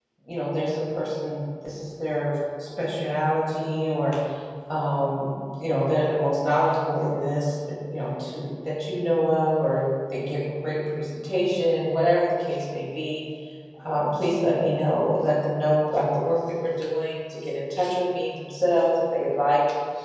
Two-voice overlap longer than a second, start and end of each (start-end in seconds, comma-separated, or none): none